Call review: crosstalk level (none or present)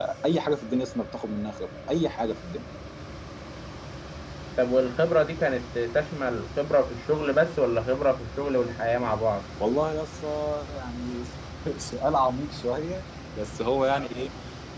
none